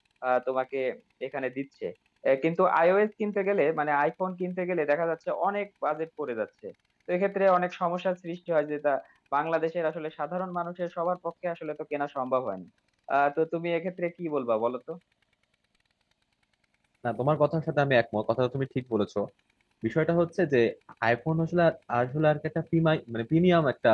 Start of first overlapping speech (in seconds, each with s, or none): none